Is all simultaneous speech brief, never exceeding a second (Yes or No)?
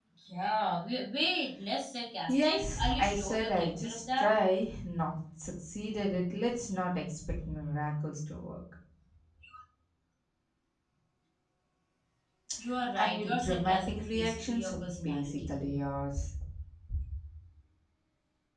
No